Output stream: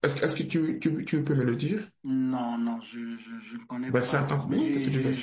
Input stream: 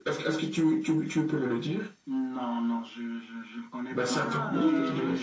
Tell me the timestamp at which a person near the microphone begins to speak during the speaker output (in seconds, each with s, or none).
4.0 s